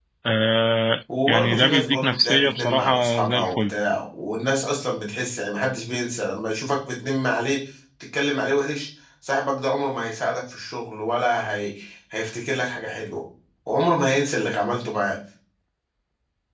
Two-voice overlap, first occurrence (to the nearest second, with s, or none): 1 s